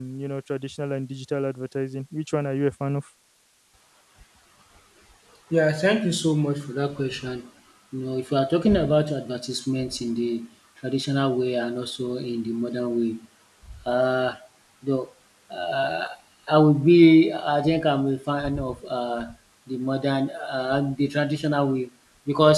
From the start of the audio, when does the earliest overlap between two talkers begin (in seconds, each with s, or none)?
none